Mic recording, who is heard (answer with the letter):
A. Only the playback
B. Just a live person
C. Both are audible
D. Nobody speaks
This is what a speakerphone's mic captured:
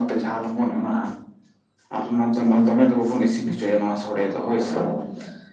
A